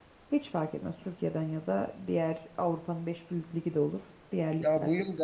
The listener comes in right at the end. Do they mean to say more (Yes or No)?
Yes